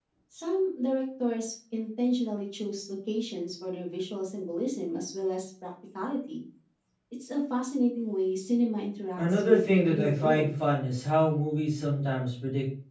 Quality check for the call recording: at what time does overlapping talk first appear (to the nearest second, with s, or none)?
9 s